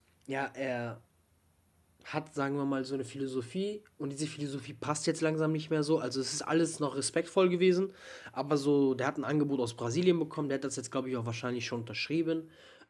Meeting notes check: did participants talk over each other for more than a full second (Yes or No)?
No